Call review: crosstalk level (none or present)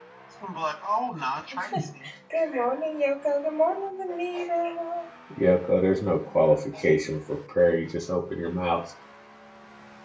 none